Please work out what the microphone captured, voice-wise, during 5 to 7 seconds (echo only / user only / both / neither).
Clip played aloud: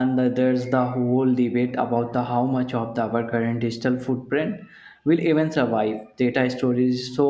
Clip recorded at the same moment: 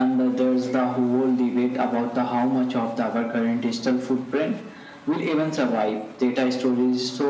echo only